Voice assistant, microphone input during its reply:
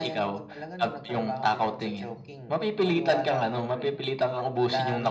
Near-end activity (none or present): none